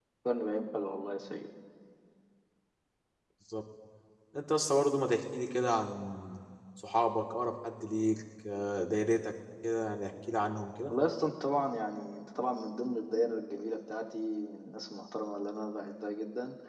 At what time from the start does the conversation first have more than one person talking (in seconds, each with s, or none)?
none